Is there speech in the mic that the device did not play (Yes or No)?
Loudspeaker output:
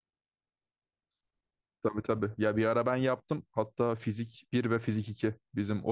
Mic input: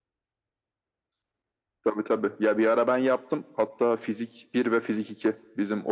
No